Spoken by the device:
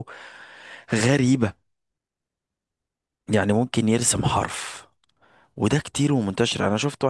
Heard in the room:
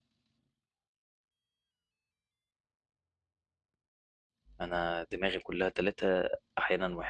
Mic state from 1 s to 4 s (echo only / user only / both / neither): neither